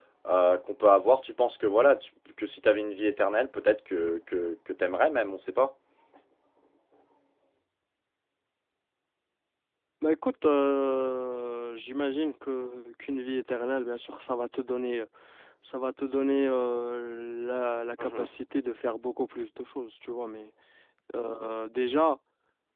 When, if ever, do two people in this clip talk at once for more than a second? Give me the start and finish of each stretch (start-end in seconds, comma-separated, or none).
none